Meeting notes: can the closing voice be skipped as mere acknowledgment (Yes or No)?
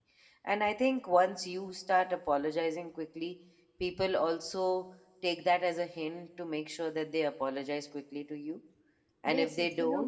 No